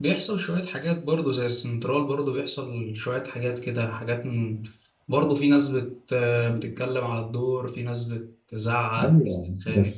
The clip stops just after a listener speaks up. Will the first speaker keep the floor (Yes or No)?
No